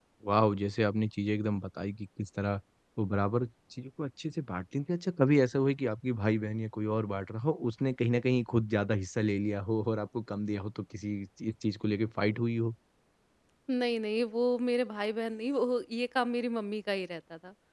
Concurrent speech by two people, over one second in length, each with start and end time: none

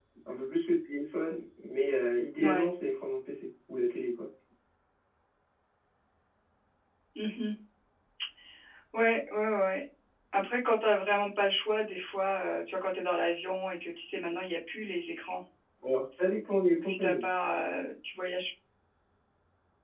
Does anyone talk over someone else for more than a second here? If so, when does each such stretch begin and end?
none

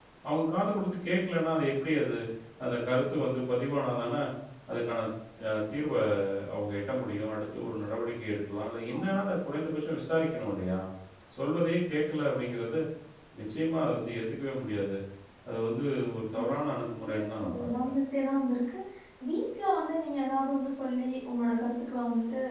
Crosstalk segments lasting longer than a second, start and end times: 16.4-17.9

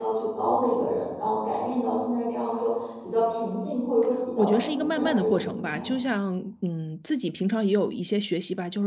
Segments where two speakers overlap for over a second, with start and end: 4.4-6.0

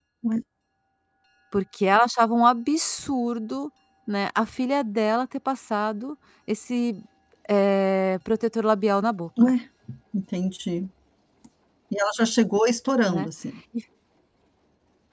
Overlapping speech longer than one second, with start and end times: none

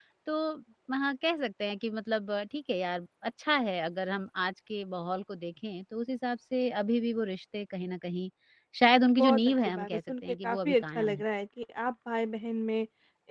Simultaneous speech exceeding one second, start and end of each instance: 9.2-11.2

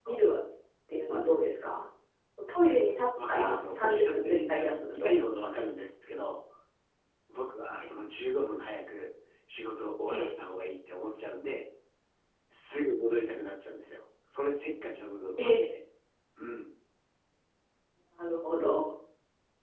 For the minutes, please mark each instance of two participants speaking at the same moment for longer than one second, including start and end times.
3.3-5.1

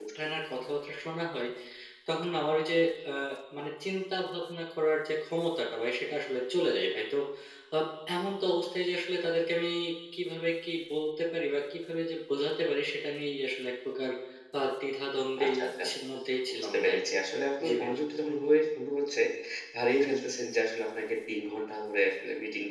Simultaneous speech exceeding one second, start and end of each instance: none

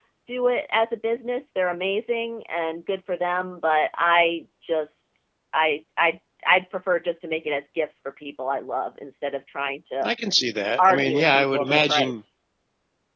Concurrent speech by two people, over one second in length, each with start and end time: 10.8-12.2

